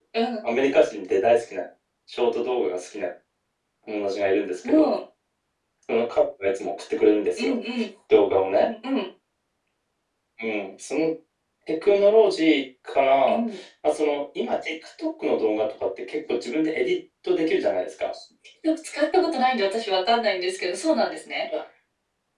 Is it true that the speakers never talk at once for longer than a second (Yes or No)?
Yes